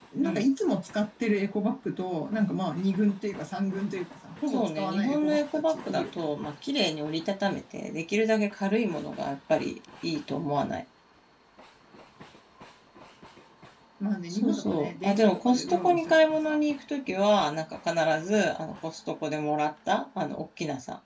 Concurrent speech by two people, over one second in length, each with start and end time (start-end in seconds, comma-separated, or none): 4.5-6.3, 14.3-16.6